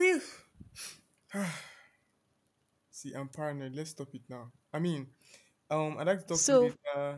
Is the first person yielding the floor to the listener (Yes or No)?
No